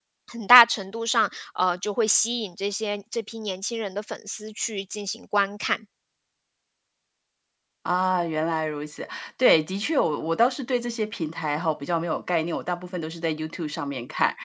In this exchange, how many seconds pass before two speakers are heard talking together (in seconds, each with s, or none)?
none